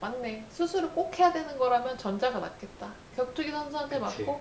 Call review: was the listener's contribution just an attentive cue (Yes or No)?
Yes